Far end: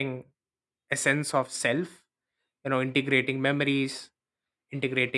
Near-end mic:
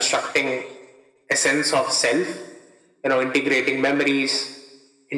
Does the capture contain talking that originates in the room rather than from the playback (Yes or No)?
No